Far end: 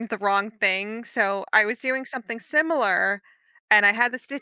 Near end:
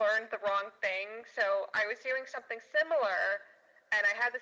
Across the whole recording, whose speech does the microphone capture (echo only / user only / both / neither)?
echo only